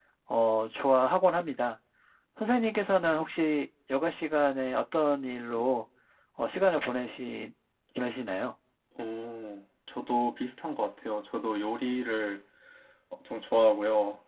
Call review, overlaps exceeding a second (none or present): none